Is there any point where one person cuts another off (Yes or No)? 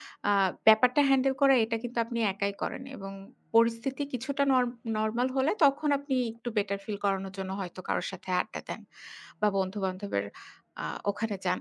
No